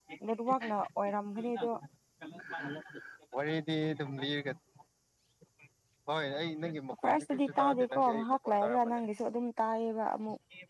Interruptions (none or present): present